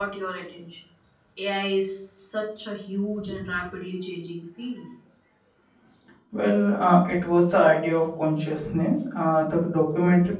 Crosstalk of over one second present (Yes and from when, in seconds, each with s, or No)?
No